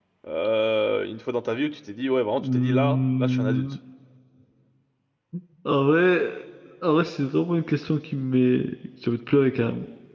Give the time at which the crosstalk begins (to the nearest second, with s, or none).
2 s